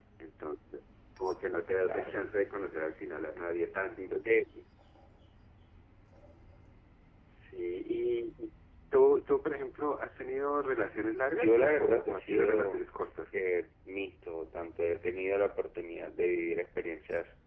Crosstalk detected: Yes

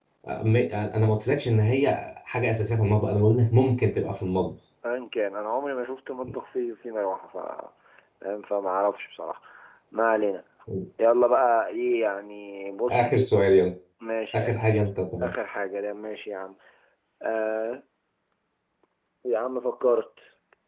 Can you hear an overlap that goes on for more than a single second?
No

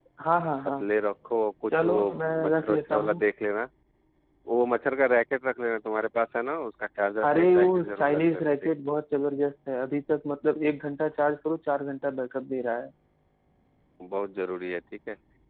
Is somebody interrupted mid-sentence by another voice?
Yes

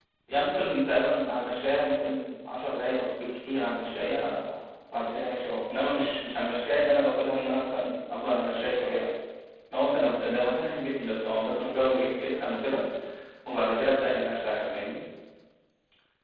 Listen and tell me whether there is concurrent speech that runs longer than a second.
No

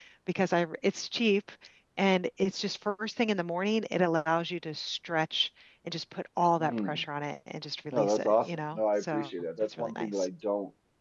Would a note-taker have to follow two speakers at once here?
Yes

